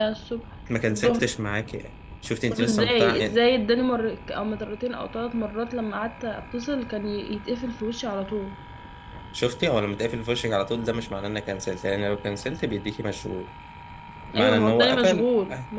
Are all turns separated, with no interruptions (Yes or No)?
No